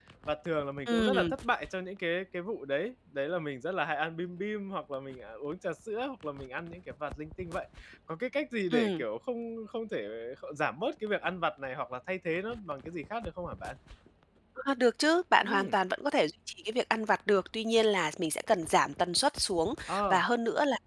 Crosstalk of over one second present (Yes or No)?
No